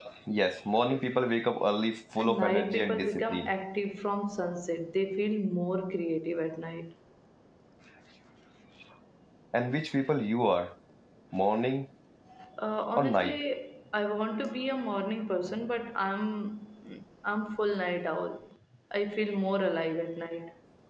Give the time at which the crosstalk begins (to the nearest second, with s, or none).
2 s